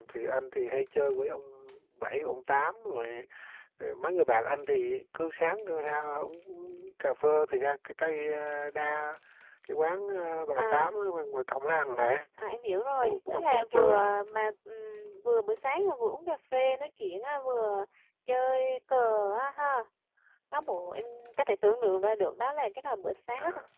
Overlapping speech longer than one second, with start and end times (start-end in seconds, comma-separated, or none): 13.0-14.3